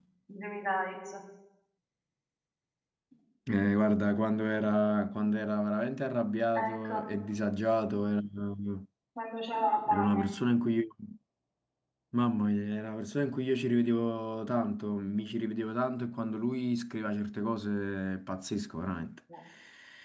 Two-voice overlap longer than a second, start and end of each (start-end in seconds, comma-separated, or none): none